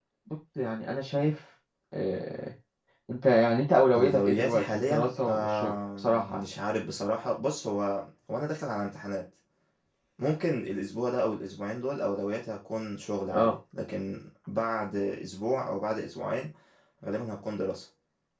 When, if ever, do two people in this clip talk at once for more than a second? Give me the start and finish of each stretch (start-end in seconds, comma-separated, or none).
4.0-6.4